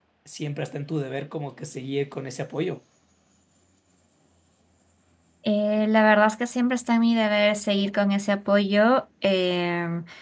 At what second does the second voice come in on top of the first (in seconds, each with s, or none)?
none